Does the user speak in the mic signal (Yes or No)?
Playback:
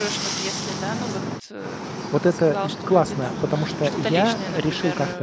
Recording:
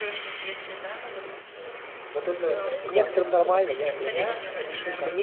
Yes